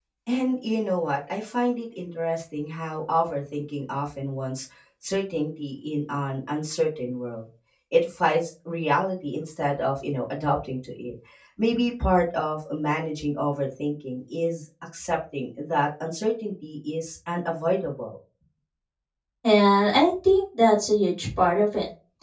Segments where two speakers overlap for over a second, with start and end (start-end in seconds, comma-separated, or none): none